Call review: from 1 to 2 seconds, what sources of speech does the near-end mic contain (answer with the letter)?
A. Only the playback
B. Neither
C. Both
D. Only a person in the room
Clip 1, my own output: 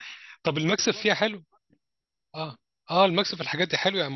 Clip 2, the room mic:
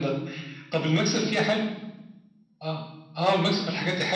A